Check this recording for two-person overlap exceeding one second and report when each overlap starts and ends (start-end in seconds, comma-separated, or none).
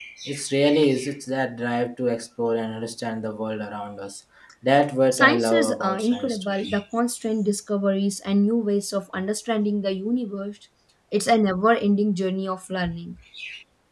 5.1-6.5